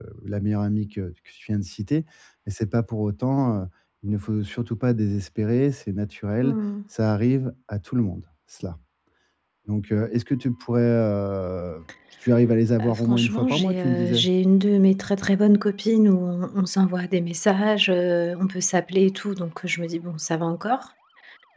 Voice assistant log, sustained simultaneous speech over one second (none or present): present